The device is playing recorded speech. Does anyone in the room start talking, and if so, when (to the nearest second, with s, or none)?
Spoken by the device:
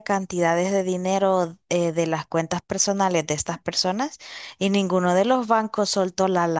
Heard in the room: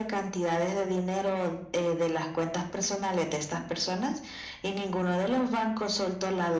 none